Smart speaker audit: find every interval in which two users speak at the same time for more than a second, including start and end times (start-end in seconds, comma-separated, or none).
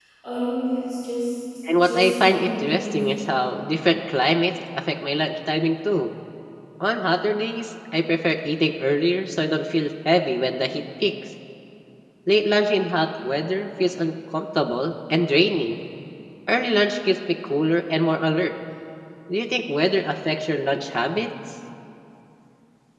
1.8-3.3